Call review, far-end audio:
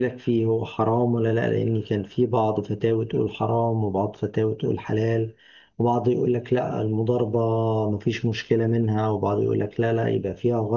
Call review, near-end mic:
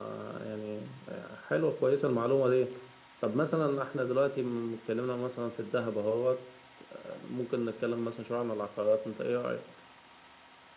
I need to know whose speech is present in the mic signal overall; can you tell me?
user only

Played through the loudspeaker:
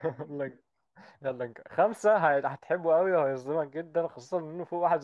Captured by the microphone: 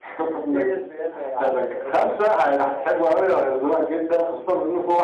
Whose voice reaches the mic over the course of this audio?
both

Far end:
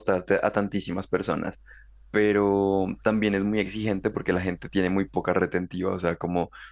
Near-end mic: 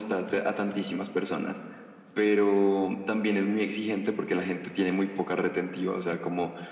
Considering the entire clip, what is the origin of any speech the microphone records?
echo only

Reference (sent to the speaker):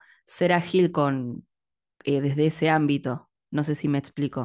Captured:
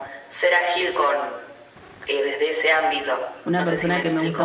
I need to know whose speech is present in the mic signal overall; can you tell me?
both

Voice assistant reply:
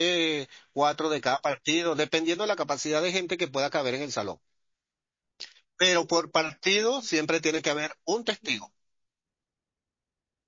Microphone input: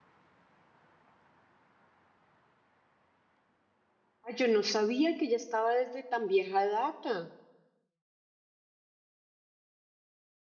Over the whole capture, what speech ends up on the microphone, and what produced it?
user only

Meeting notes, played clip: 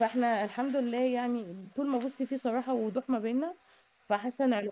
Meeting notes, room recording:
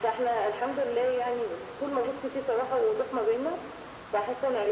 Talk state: echo only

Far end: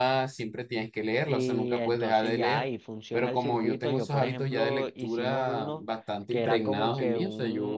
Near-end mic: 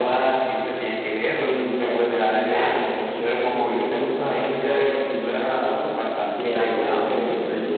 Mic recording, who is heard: both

